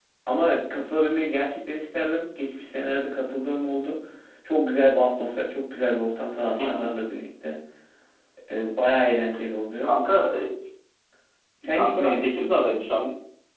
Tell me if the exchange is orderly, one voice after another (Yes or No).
No